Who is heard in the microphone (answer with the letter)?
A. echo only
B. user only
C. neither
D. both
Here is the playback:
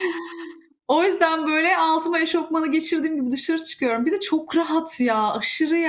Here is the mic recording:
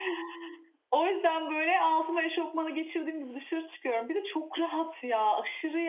A